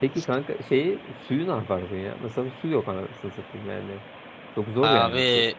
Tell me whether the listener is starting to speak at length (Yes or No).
Yes